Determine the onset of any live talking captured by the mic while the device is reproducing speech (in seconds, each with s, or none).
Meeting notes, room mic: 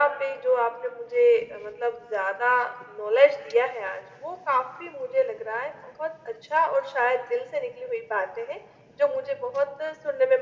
none